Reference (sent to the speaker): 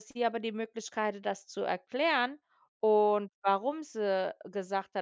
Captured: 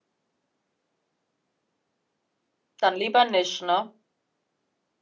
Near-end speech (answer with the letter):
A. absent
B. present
B